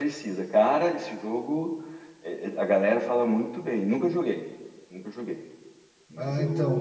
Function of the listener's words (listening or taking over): taking over